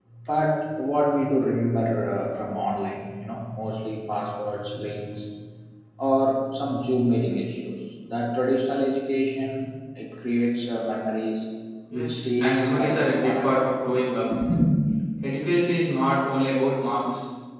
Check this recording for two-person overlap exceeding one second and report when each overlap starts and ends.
11.9-13.7

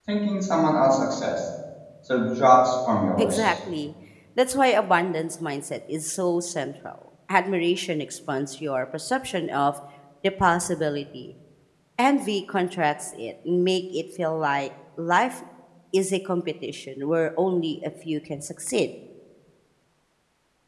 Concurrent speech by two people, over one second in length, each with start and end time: none

